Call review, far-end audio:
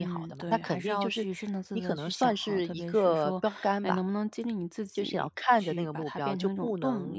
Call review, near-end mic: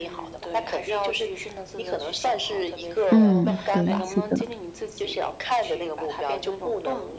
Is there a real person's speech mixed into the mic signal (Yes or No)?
Yes